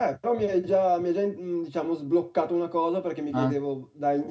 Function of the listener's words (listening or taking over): listening